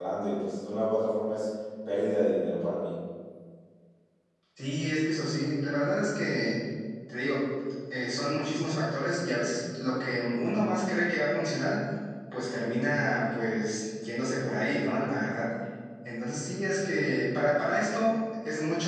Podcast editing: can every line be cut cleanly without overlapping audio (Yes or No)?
Yes